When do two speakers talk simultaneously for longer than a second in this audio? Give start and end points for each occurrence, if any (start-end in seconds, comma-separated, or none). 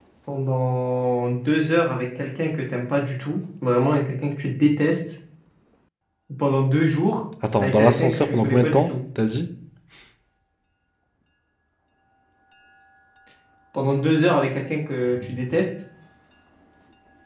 7.6-8.9